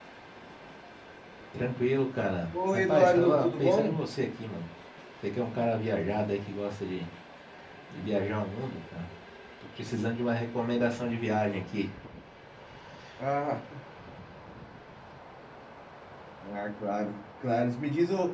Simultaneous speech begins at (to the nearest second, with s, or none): 3 s